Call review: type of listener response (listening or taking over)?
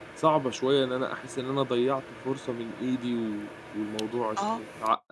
listening